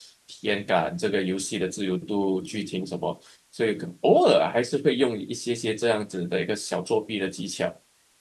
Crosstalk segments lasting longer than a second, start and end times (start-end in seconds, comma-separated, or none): none